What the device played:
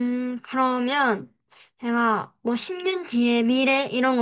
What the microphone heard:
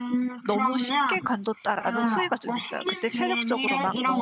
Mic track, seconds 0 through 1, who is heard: both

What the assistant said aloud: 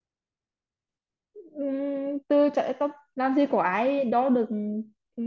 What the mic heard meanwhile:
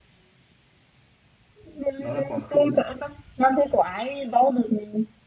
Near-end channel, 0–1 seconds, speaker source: neither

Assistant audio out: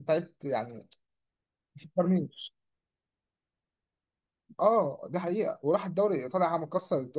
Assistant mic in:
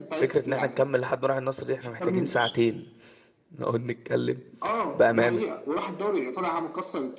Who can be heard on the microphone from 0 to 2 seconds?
both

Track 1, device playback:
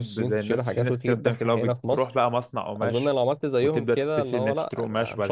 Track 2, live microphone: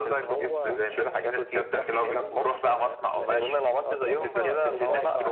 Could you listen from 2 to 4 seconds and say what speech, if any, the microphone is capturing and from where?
both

